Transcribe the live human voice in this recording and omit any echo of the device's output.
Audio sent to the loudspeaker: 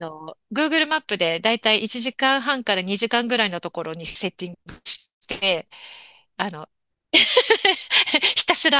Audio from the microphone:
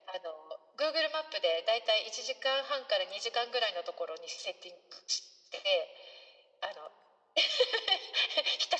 none

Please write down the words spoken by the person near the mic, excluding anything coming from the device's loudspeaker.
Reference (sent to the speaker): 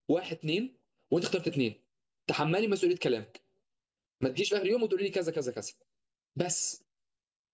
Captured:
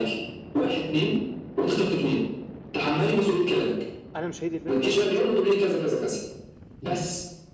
انا مش هي دي البنت اللي انا عاوزها

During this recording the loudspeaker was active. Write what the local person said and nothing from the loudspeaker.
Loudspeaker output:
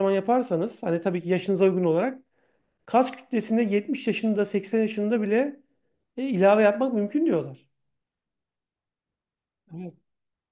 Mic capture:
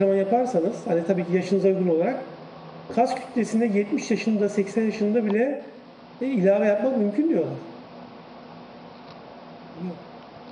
none

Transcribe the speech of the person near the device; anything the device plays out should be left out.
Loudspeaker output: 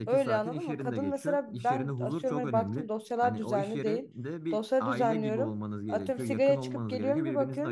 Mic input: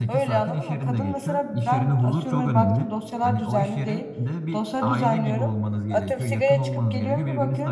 none

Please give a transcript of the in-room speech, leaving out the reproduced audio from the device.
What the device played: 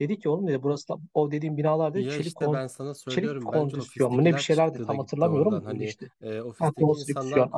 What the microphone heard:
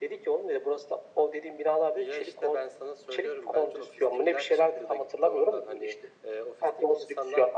none

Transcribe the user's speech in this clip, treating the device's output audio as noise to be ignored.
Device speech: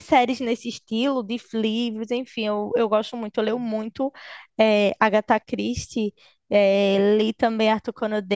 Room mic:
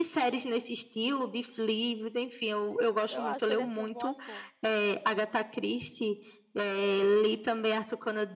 eu acho ele assim um bom ator.

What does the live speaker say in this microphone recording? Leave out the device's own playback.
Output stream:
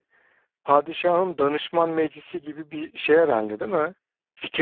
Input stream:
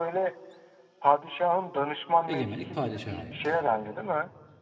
Egemenlik padişaha aittir.

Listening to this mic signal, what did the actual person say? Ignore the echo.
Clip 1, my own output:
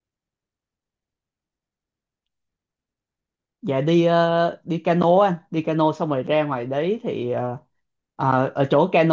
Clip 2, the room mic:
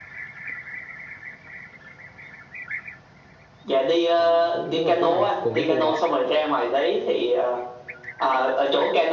À cũng tức là cũng nằm cùng cái khu đó.

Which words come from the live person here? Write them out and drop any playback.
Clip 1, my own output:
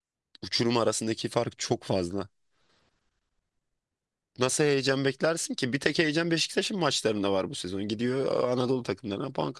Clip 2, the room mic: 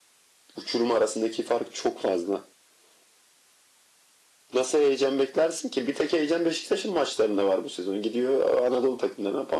none

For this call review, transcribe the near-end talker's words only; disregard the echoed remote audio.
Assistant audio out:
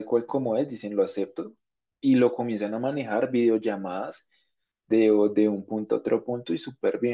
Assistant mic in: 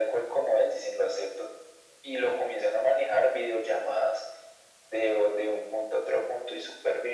none

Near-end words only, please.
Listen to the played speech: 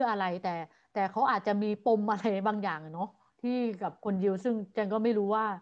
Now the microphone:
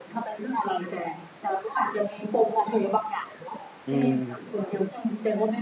อืม

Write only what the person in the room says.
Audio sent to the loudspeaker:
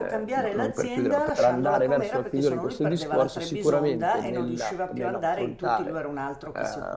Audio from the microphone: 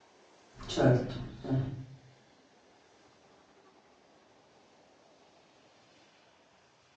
certo, eh.

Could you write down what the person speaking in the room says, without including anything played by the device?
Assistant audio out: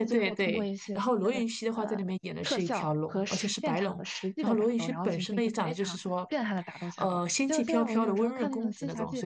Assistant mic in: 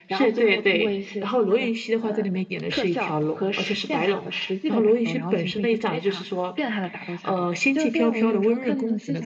none

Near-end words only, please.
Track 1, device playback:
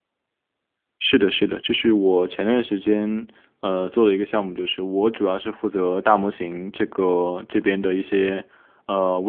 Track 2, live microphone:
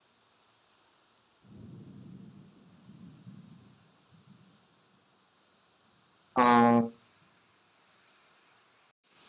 嗯，

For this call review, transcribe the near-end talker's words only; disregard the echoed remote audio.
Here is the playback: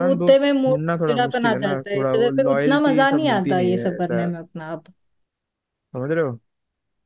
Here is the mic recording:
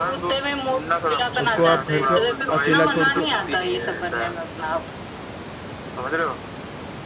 उसको आप घर पे अकेला छोड़ के

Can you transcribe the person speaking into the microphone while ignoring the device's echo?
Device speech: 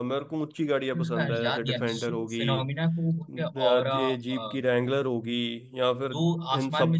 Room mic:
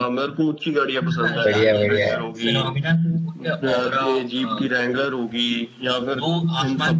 बढ़िया बढ़िया है

